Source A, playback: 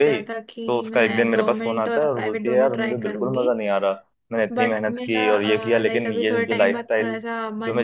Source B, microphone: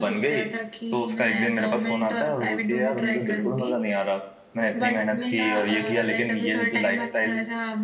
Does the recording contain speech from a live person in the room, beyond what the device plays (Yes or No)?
No